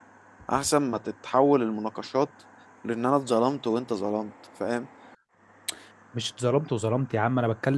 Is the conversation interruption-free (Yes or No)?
Yes